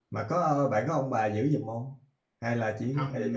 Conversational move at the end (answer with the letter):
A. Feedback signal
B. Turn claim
B